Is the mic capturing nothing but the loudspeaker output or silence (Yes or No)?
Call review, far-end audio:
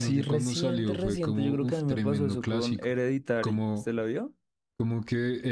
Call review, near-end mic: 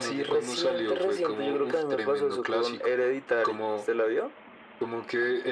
Yes